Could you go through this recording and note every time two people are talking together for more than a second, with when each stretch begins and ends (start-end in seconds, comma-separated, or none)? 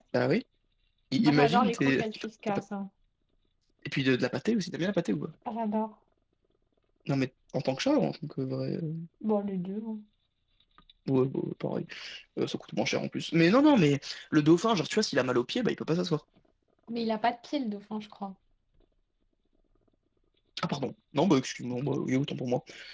1.3-2.6